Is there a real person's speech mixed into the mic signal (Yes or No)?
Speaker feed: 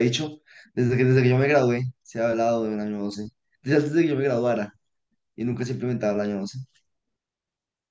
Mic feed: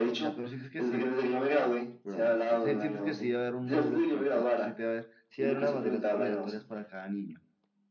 Yes